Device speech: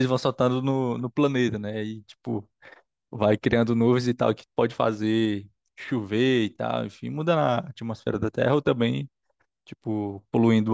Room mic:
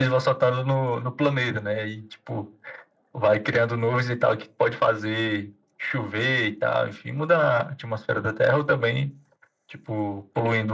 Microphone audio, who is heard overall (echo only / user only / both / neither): echo only